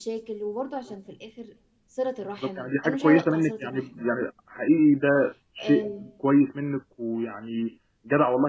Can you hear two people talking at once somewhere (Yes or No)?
Yes